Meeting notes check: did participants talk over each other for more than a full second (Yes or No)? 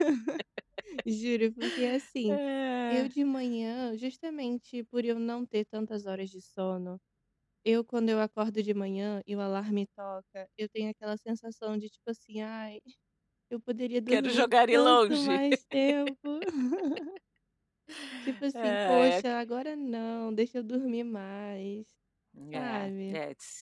Yes